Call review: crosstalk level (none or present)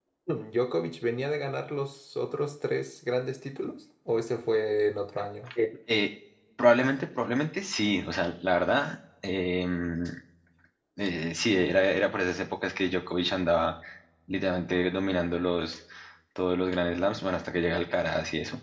none